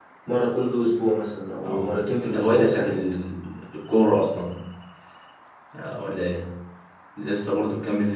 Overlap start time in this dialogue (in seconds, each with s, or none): 1.6 s